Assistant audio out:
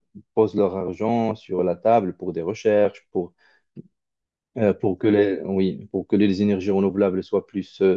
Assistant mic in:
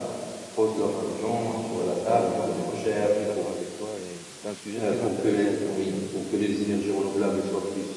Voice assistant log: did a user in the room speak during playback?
Yes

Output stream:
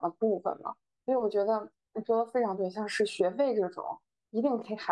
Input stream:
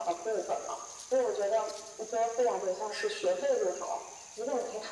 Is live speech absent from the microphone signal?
Yes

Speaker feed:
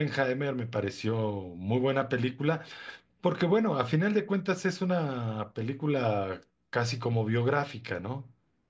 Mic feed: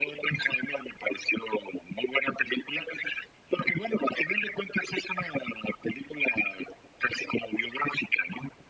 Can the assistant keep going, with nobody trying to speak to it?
Yes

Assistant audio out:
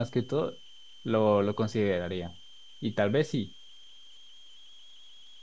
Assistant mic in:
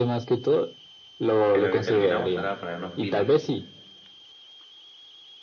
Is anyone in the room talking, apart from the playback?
Yes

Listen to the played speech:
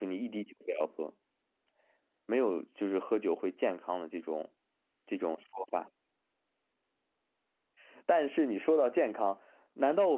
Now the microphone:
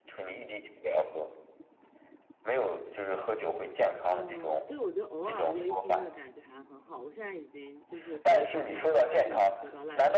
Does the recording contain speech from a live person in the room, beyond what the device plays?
Yes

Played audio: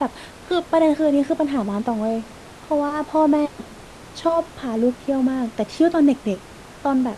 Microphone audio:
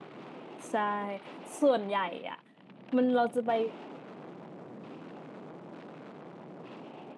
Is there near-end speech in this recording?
Yes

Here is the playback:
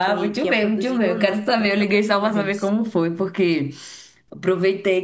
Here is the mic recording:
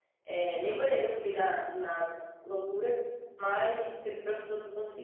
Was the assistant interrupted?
Yes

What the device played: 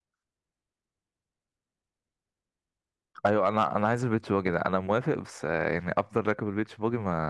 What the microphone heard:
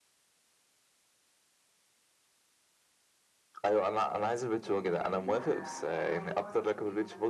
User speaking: Yes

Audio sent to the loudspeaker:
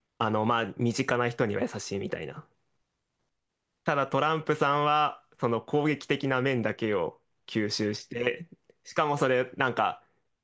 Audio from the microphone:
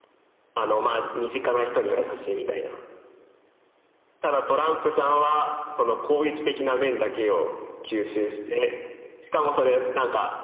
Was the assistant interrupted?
No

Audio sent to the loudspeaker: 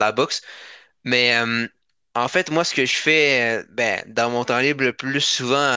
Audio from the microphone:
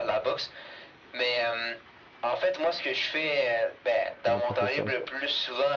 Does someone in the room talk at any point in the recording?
Yes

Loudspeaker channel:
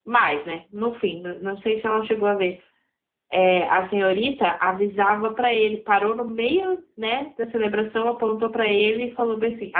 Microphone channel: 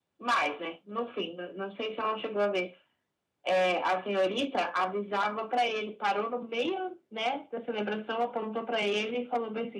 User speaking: No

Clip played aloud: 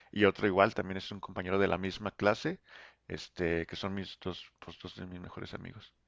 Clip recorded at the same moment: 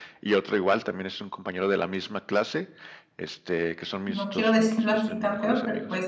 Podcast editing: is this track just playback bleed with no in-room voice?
No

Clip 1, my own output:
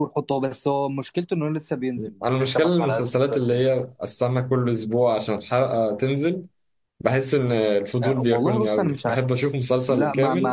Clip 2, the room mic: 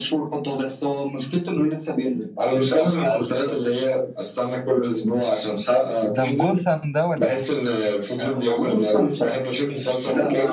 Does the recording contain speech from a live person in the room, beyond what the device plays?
Yes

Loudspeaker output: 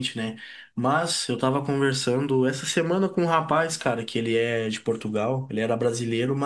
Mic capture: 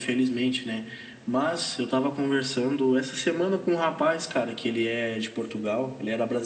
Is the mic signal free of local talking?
Yes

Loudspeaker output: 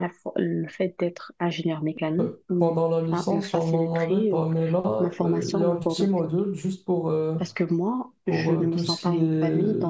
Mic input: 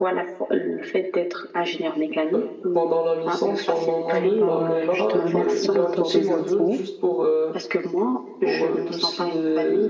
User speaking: Yes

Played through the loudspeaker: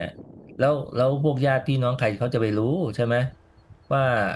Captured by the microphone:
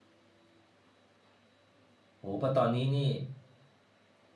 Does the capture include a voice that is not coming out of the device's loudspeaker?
Yes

